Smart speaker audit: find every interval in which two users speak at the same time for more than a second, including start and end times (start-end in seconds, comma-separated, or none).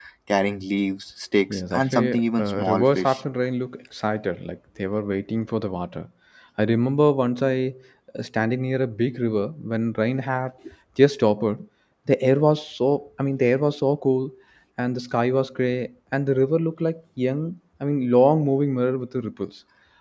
1.5-3.2